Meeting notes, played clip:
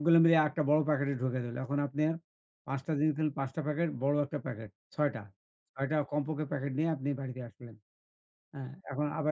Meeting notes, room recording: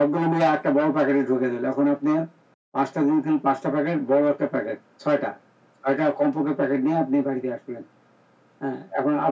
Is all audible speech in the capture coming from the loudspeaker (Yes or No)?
Yes